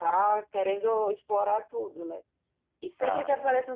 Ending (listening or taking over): listening